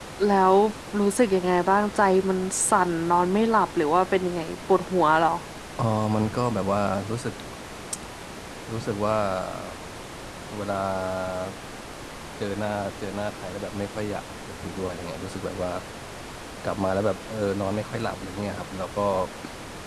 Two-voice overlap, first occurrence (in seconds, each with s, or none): none